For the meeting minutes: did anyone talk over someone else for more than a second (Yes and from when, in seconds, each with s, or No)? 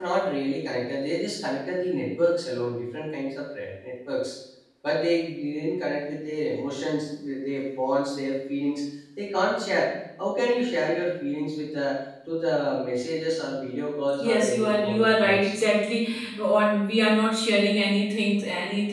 Yes, from 14.2 s